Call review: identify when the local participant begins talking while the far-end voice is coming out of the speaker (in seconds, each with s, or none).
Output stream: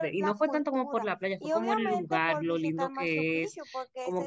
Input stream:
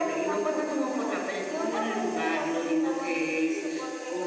none